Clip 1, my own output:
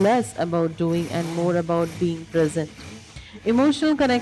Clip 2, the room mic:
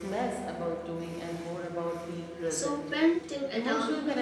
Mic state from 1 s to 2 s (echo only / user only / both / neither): echo only